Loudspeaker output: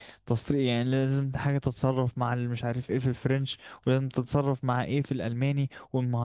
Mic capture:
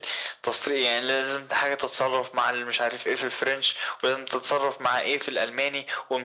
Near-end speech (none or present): none